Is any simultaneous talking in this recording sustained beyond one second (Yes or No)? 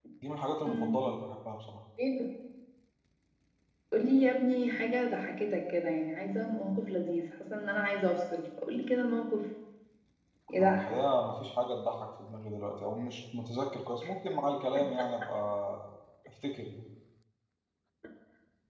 No